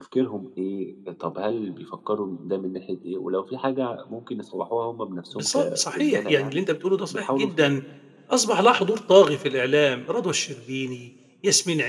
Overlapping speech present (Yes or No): Yes